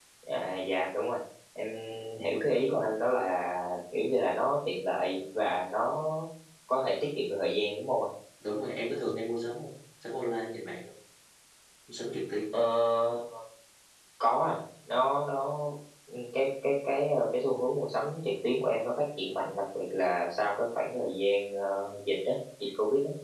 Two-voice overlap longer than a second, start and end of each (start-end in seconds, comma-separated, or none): none